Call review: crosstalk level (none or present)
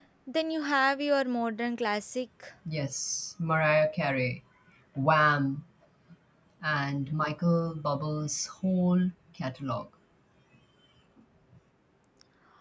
none